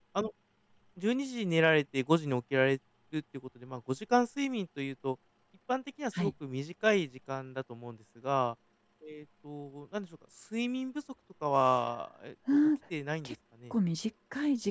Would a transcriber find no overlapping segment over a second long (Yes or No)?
Yes